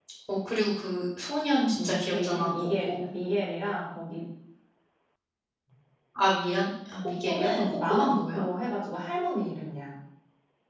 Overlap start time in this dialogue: 1.8 s

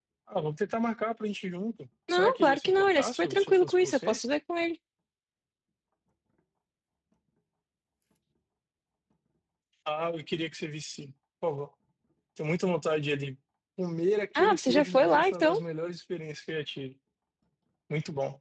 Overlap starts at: 2.1 s

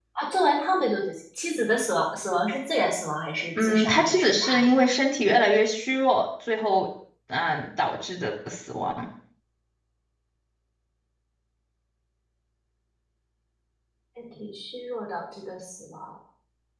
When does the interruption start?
3.6 s

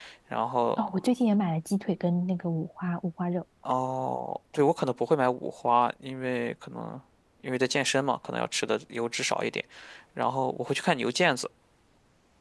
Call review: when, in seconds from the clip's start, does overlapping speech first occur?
none

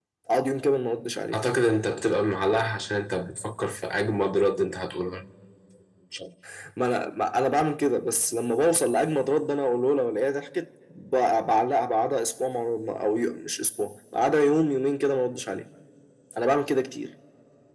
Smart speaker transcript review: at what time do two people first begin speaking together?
none

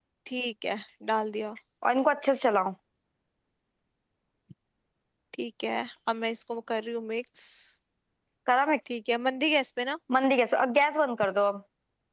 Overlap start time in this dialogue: none

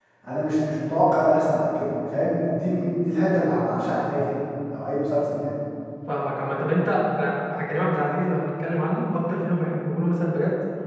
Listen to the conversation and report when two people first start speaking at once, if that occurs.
none

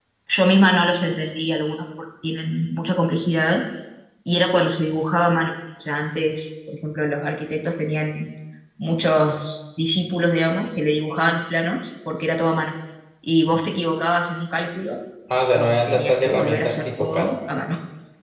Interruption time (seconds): 15.6 s

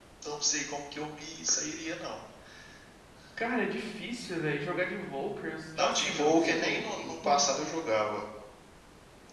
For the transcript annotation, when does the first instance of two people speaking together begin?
5.8 s

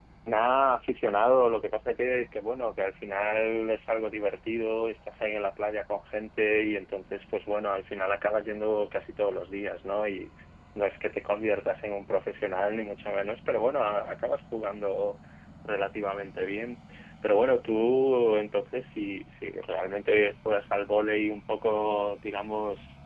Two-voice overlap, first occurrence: none

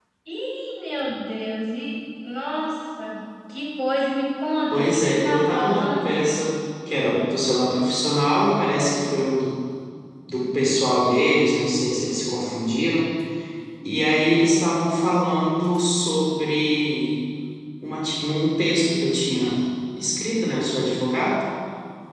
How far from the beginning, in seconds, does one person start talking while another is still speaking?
4.7 s

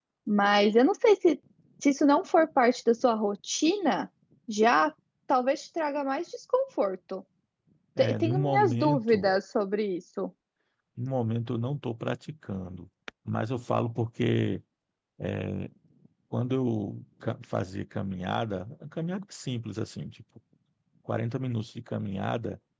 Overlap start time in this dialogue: 8.0 s

